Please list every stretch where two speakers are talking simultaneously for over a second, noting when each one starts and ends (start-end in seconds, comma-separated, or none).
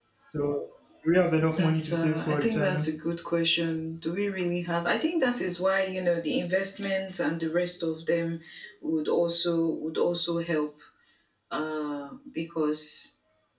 1.5-2.8